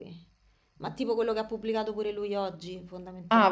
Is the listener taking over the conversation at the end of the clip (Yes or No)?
Yes